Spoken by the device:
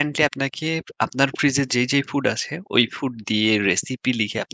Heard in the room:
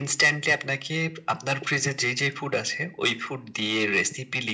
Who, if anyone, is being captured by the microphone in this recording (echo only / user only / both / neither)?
echo only